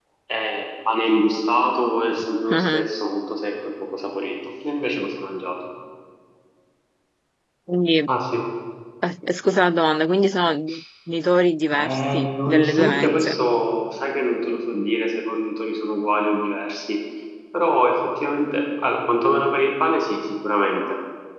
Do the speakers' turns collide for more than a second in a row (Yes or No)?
Yes